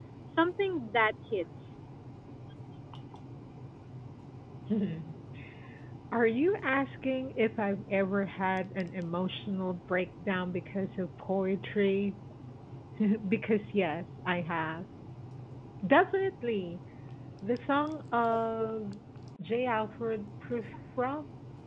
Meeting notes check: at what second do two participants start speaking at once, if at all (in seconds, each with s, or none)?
none